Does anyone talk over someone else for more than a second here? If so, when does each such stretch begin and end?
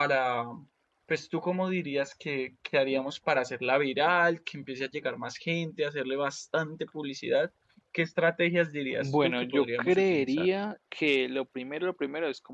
9.0-10.5

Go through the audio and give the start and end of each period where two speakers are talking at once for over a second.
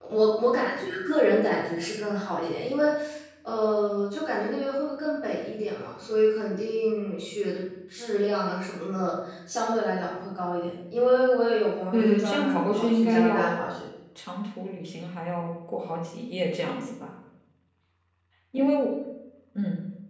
11.9-13.7

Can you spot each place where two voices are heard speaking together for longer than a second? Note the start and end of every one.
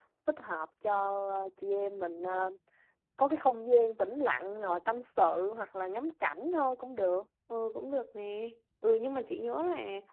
none

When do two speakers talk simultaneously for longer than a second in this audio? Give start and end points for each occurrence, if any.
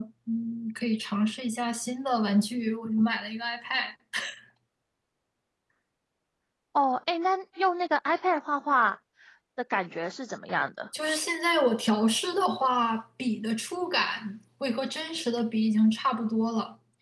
none

